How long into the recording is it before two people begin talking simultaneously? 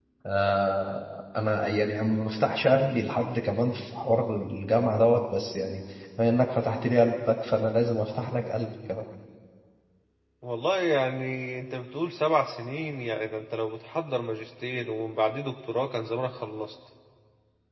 none

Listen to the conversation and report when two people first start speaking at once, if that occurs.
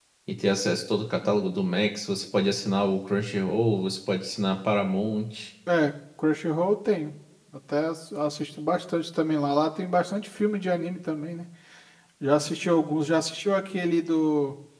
none

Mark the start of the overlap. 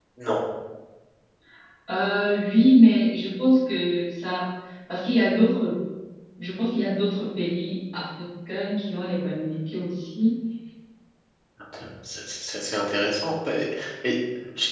none

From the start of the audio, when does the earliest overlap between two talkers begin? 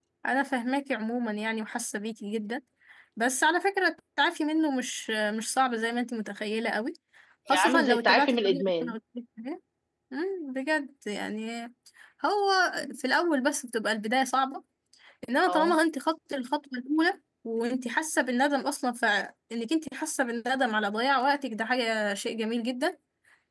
7.5 s

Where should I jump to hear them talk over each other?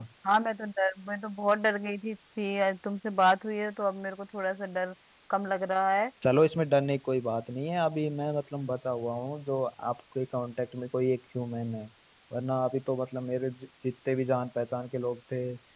none

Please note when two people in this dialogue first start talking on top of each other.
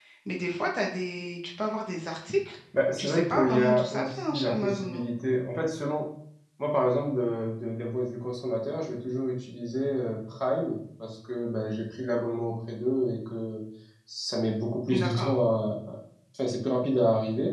3.0 s

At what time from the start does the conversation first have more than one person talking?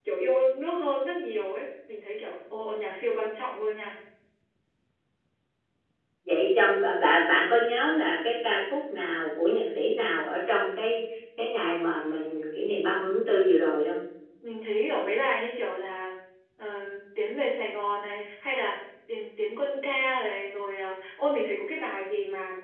none

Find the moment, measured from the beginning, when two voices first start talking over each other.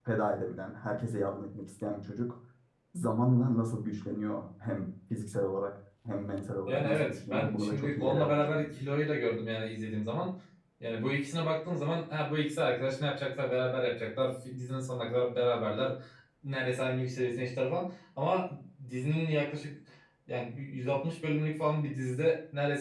6.7 s

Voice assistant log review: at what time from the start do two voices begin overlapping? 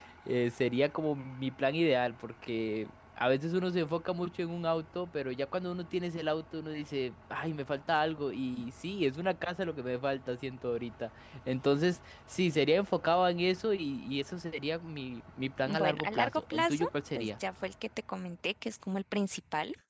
15.7 s

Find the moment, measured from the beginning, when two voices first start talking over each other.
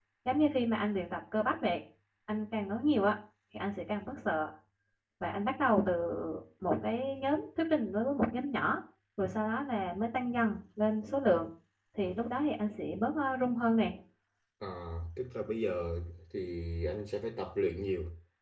none

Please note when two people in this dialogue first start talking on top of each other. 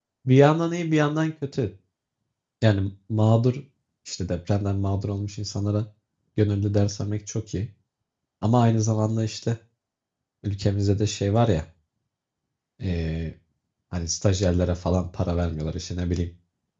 none

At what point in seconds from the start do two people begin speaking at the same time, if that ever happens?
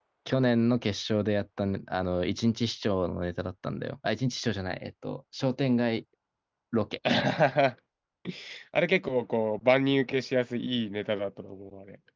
none

